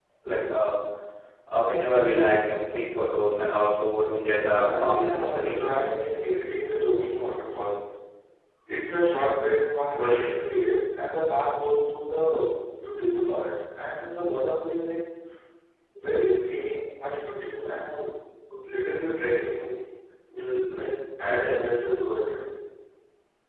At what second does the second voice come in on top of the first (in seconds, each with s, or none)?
4.5 s